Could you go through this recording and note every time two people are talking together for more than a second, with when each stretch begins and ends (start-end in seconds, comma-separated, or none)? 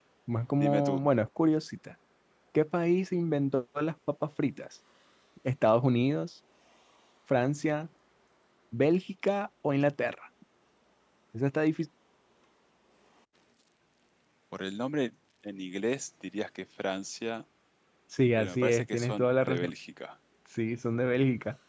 18.4-19.7